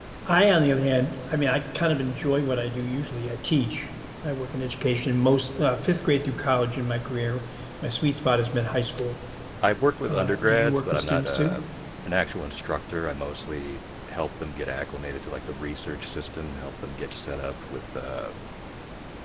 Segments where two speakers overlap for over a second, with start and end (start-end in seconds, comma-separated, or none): 10.1-11.6